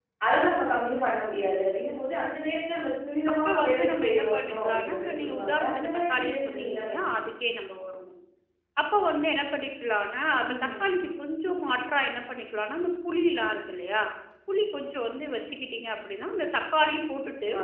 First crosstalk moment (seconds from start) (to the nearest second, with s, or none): 3 s